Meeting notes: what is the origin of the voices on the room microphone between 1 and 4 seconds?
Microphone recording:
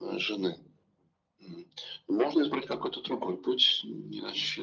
echo only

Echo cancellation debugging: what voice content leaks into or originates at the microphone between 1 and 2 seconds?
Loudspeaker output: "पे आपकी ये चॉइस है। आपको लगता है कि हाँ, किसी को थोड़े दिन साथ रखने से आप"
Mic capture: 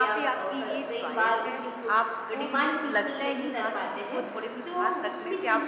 both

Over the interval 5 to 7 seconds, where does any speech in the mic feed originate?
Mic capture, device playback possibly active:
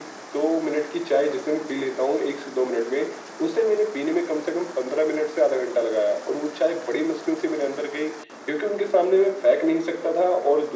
echo only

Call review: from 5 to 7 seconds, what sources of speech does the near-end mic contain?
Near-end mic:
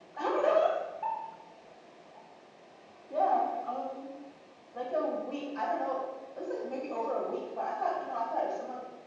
echo only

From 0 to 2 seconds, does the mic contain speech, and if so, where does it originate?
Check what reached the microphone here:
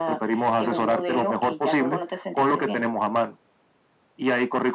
echo only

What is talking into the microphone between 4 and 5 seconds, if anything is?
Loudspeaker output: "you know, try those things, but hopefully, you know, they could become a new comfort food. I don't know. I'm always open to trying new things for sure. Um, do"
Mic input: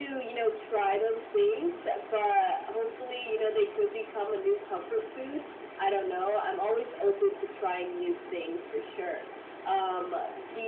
echo only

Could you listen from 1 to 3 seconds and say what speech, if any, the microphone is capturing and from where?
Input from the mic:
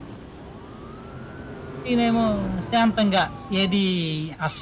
user only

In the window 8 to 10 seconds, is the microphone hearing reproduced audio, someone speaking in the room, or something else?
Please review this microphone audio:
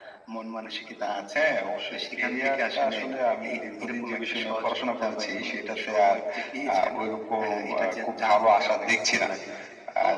echo only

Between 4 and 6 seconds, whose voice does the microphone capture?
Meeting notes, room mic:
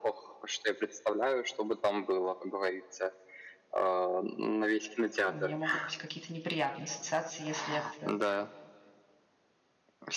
both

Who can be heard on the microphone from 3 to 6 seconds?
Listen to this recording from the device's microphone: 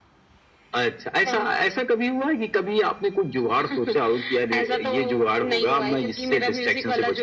echo only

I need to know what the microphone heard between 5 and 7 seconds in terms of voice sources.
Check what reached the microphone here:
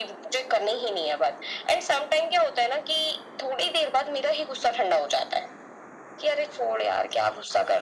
echo only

